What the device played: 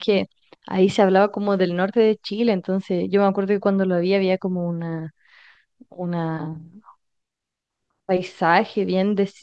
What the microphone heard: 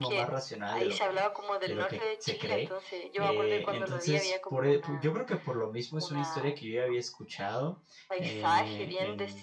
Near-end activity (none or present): present